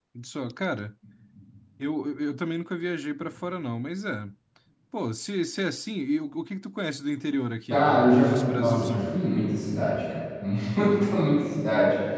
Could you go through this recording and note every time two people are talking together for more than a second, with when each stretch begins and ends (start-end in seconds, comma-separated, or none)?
7.7-9.1